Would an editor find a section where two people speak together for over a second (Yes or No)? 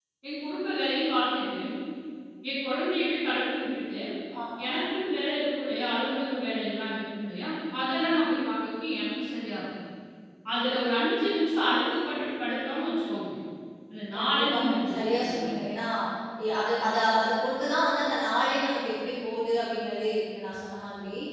Yes